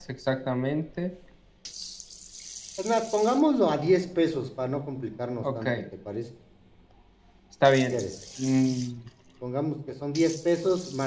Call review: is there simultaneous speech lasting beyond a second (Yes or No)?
No